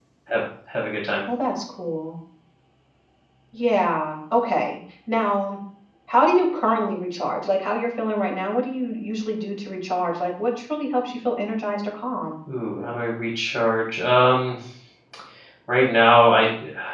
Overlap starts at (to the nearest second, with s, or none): none